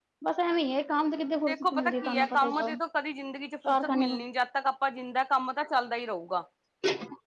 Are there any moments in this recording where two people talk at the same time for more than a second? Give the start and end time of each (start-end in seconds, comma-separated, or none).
1.5-2.7